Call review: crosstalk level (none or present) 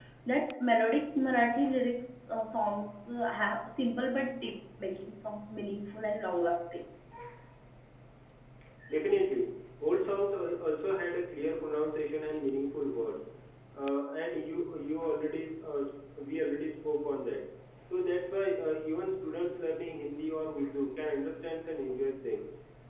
none